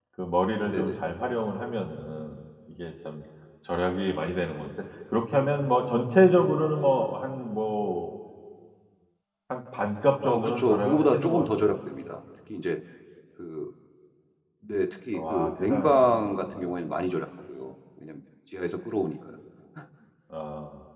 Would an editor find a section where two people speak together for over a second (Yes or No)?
Yes